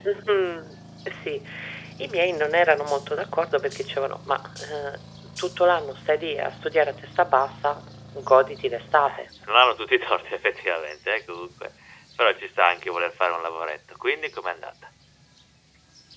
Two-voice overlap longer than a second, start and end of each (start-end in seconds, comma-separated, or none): none